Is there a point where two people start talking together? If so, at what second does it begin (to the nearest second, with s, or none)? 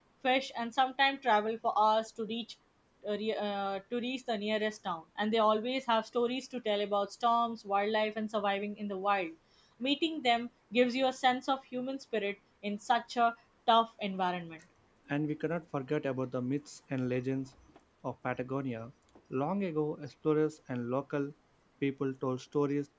none